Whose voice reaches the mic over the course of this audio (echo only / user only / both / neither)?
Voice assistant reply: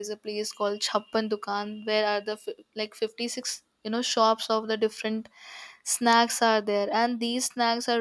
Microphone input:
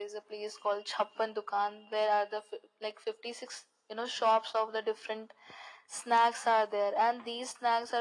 echo only